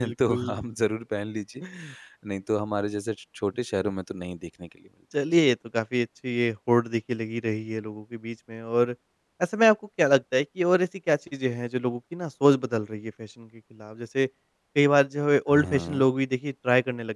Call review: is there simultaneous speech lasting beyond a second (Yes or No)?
No